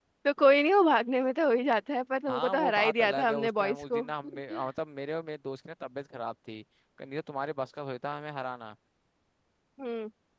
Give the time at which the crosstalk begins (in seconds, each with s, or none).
2.3 s